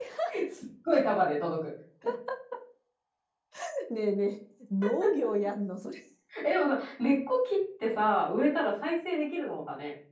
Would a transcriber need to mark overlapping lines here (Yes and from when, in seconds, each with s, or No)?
No